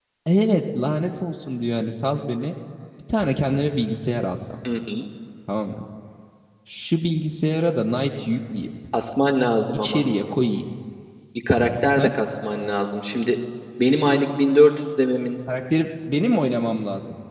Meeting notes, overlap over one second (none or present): none